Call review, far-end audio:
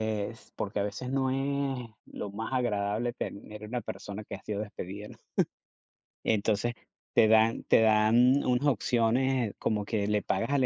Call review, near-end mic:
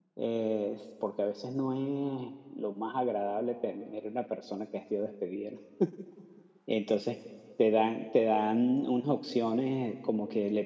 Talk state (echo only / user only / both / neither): echo only